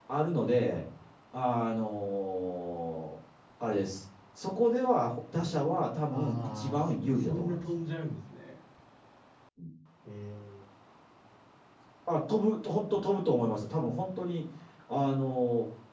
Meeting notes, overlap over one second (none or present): present